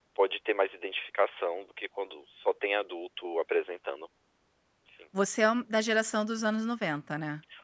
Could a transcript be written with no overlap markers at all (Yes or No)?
Yes